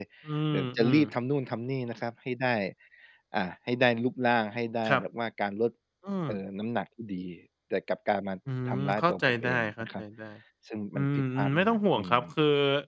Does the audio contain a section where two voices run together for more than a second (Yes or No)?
Yes